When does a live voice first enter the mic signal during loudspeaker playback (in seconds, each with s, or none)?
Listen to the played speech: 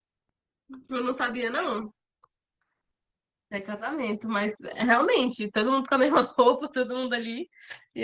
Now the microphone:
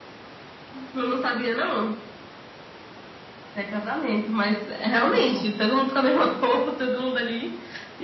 5.0 s